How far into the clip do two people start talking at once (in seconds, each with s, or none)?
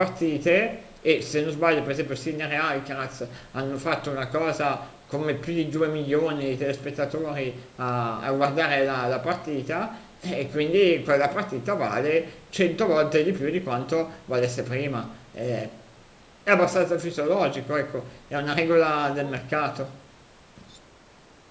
none